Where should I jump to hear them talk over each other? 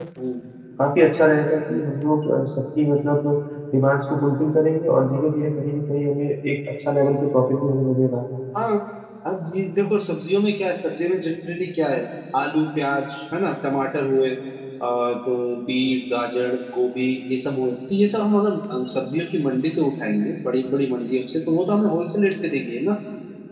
none

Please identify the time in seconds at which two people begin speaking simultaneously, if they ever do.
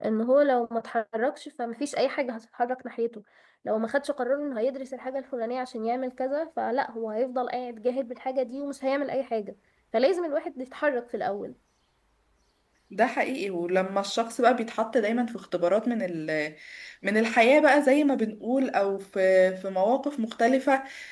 none

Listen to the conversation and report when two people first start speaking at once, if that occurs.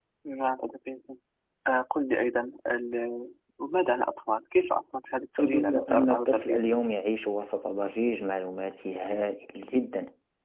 5.4 s

